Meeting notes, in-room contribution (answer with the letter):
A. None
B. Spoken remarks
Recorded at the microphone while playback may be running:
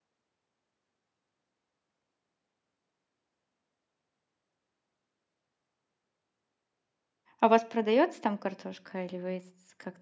B